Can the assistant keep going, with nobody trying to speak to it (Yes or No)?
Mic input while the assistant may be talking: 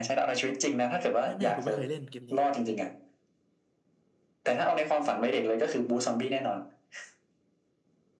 No